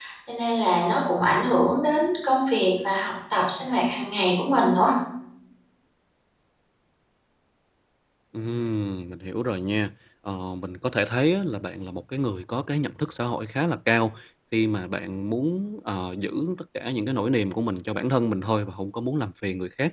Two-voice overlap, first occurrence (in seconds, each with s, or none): none